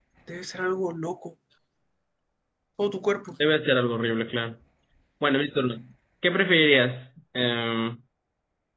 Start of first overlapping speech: none

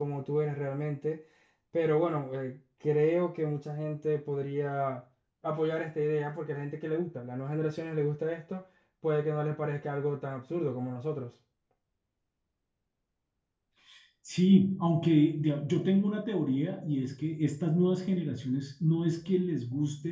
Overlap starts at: none

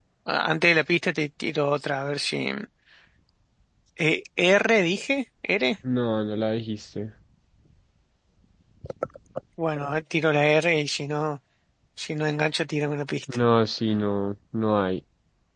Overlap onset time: none

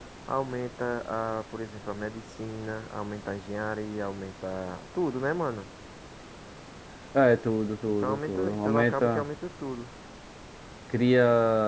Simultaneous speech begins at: 8 s

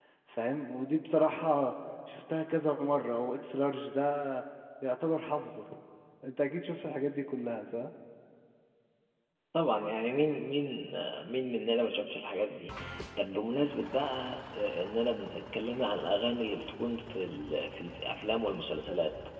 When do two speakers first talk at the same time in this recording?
none

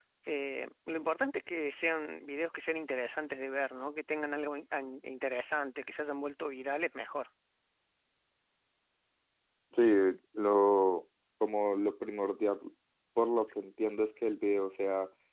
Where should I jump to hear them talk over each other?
none

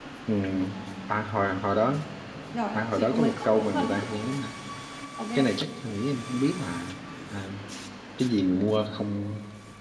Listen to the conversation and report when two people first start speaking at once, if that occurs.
3 s

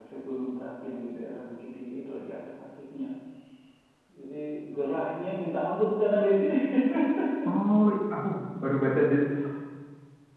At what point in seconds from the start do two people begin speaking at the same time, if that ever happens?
none

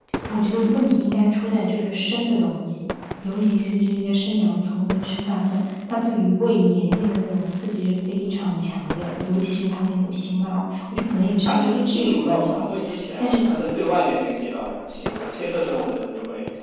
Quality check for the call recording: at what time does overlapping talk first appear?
11 s

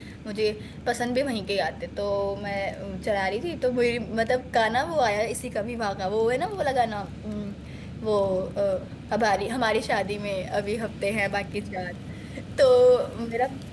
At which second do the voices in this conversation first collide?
none

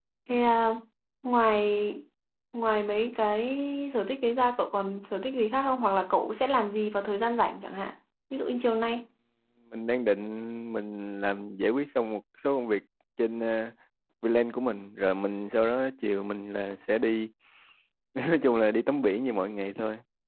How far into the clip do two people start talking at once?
none

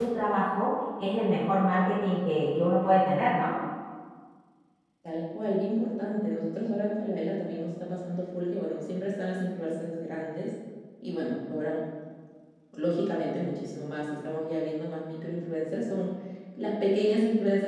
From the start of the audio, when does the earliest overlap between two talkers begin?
none

